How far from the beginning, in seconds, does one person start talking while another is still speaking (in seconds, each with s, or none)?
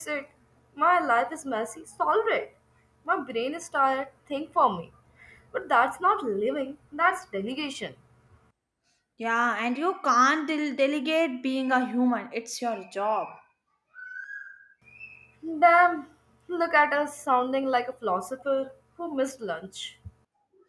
none